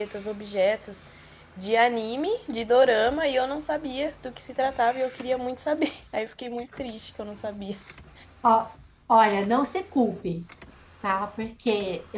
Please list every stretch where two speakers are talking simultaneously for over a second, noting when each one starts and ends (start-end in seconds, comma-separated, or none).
none